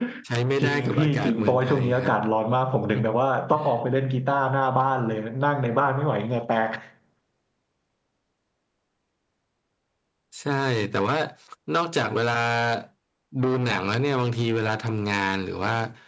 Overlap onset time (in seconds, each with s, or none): 0.6 s